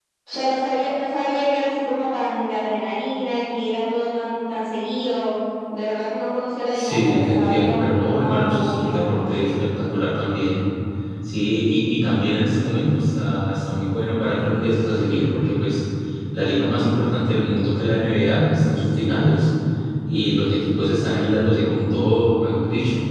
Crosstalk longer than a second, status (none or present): present